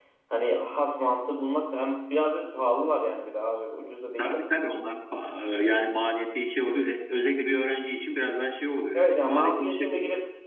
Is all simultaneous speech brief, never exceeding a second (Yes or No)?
No